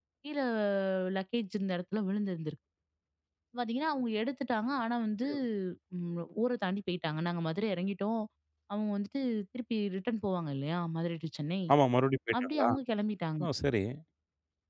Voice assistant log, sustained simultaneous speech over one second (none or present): none